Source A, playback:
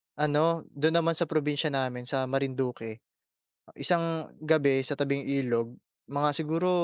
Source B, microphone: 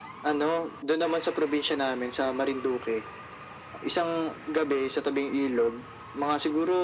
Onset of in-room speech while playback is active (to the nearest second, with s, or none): none